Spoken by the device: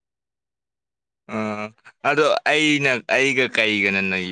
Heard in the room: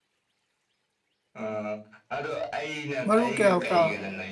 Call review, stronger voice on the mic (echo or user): user